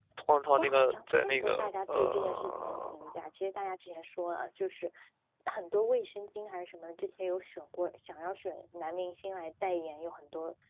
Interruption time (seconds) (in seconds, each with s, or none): 0.6 s